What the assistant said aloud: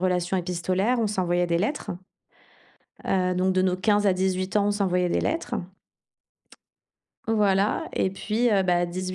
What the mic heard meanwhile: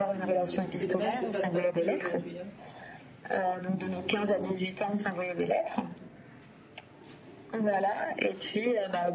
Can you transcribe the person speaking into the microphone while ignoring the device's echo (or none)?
C'est c'est dommage que ça se fasse plus aujourd'hui, hein.